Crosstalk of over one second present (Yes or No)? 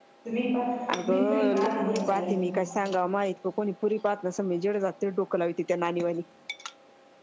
Yes